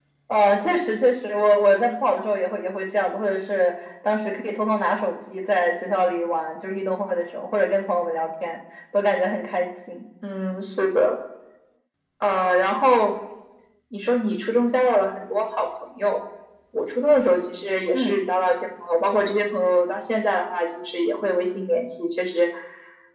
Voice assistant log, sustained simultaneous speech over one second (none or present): none